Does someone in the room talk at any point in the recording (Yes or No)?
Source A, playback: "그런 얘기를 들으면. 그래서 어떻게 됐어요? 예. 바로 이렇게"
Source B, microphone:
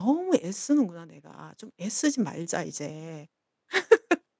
Yes